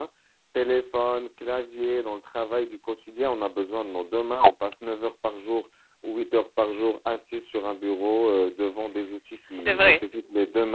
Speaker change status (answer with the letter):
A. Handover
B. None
B